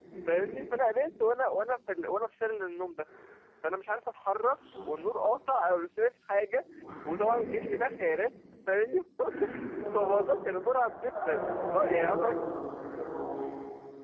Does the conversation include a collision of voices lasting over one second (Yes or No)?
Yes